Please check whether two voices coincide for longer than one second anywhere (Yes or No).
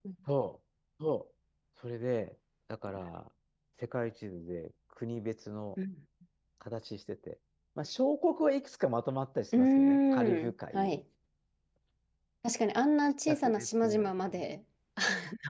Yes